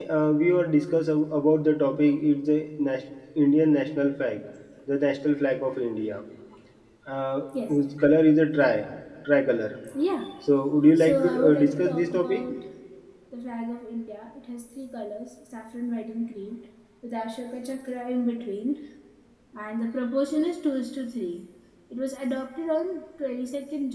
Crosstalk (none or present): present